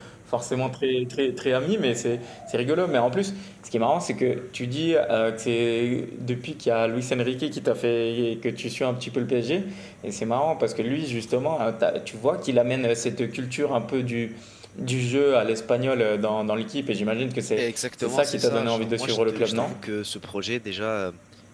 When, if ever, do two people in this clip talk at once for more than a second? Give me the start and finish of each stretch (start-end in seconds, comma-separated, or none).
17.6-19.7